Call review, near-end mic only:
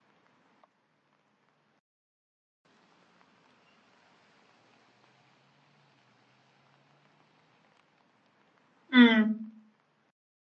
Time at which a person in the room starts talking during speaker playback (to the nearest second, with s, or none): 9 s